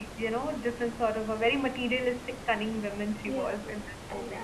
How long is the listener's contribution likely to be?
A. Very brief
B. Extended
B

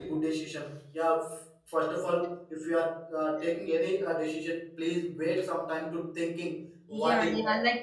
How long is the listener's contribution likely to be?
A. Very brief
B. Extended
B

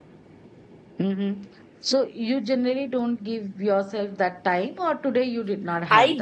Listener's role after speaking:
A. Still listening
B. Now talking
B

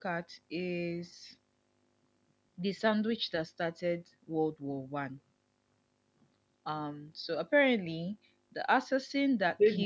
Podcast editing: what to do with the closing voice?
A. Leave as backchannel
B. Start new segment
B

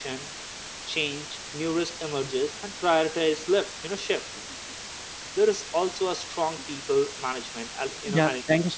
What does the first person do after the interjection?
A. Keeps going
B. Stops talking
B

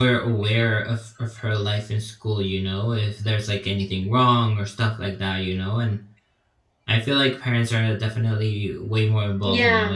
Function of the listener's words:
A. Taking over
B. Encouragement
A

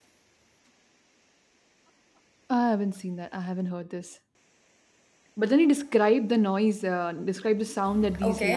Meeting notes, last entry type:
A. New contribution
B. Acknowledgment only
A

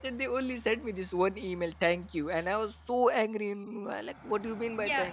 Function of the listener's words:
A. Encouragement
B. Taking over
B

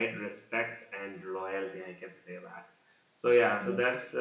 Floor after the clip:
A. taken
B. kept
B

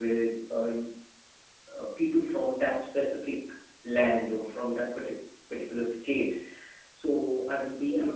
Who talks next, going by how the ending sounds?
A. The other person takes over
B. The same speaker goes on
B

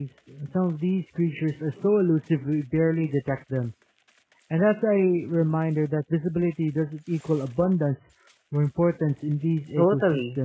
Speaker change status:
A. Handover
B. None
A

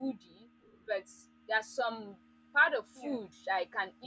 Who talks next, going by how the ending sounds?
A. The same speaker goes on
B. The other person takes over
A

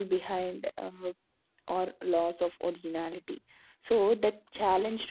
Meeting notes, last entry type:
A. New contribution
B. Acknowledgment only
B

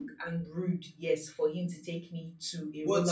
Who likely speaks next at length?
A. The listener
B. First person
A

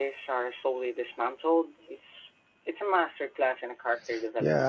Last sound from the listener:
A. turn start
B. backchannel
A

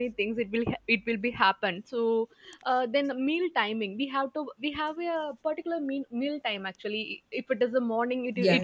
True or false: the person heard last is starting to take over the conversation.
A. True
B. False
B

